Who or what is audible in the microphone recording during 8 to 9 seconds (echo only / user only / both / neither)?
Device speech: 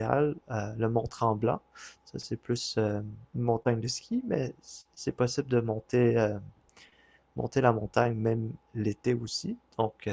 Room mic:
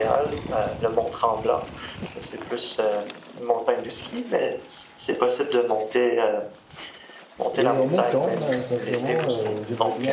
both